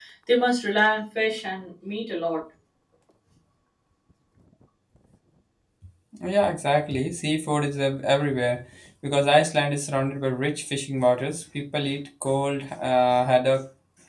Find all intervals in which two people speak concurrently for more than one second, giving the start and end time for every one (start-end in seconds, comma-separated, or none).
none